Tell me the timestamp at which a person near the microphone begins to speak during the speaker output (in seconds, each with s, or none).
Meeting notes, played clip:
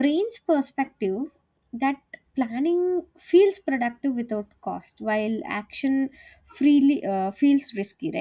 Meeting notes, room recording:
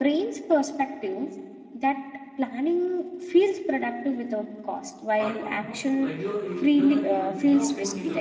5.1 s